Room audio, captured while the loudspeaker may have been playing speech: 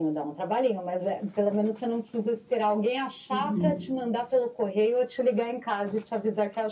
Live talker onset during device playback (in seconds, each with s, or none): 3.3 s